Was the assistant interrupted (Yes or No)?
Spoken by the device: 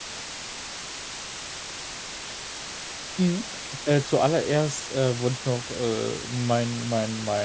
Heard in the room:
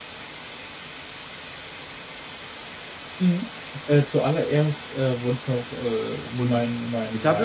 Yes